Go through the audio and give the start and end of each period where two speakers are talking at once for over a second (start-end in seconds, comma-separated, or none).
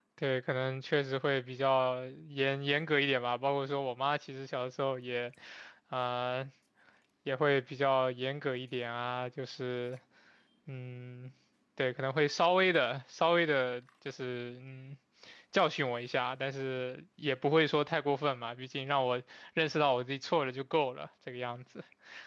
none